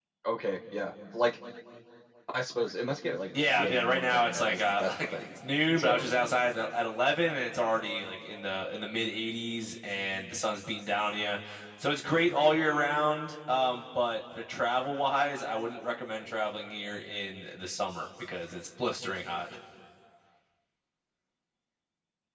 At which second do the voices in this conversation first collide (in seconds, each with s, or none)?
3.6 s